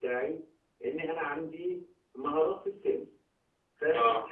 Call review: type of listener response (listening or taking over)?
listening